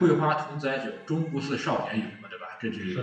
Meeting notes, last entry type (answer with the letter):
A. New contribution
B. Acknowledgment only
A